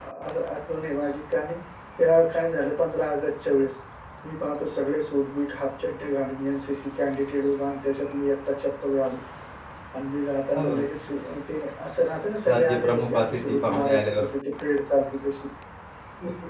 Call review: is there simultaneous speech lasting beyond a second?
Yes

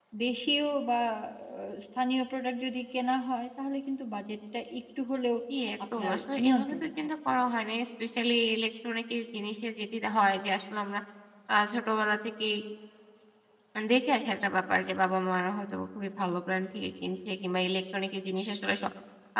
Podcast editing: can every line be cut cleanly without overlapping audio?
No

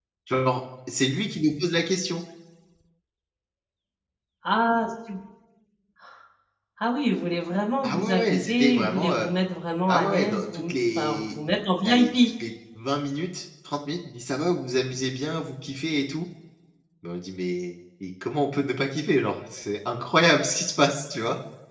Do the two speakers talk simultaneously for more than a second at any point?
Yes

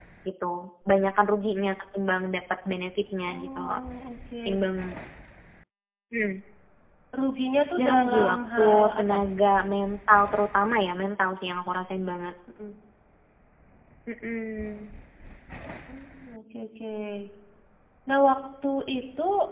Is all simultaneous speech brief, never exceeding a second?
No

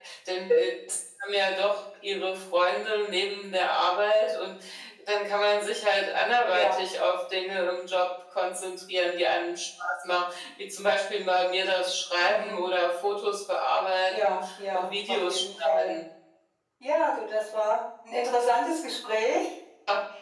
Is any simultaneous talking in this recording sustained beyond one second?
Yes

